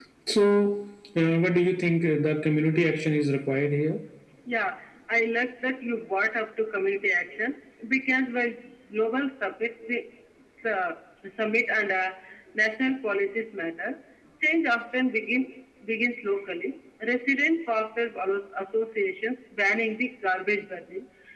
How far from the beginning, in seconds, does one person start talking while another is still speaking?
none

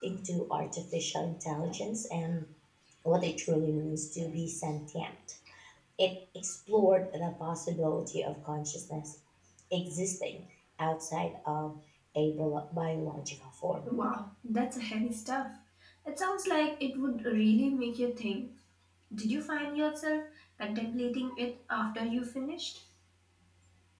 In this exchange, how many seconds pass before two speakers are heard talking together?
none

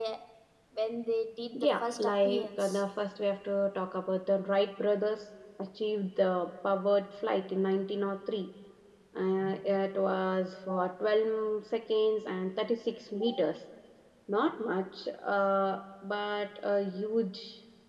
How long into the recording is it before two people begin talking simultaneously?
2 s

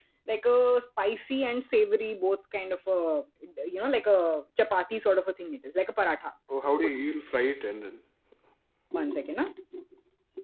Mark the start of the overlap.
none

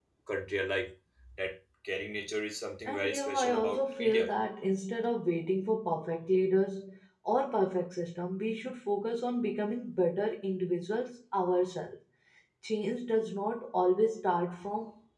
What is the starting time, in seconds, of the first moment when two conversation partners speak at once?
3 s

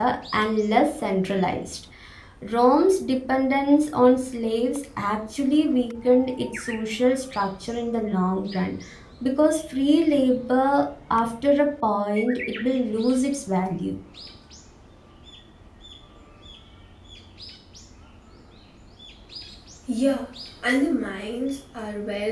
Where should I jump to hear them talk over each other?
none

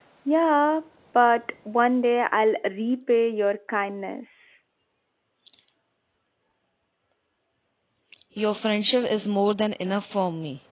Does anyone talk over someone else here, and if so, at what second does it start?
none

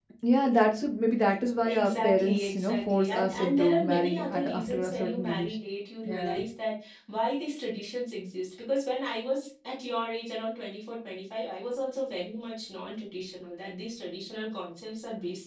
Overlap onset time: 2 s

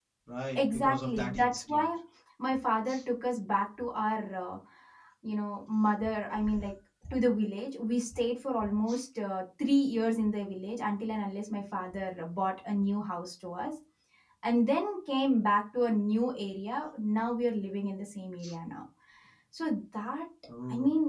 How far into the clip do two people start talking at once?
1 s

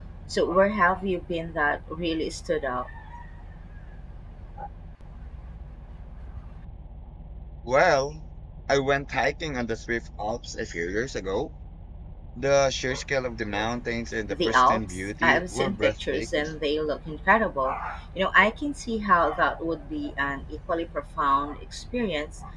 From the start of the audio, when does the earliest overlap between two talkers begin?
14 s

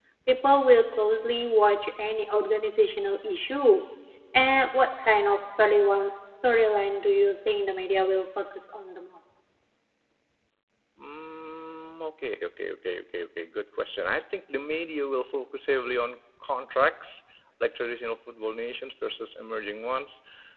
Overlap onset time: none

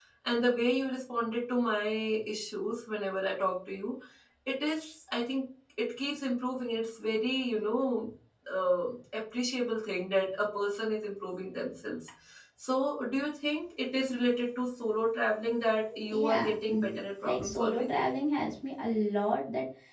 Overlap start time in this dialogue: 16 s

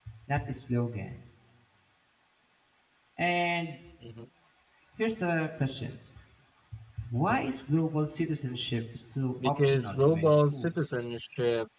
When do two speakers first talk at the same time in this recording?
9 s

